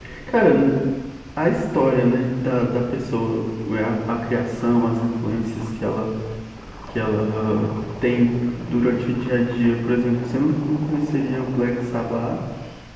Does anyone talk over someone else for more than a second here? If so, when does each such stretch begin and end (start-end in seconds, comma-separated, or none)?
none